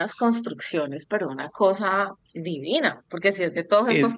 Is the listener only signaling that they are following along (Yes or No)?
Yes